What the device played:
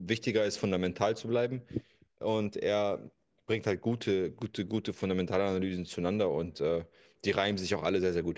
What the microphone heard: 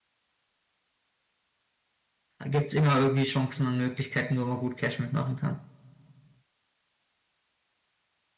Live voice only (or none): gibt es immer irgendwie Chancen und Möglichkeiten, wo man gut Cash mitmachen kann.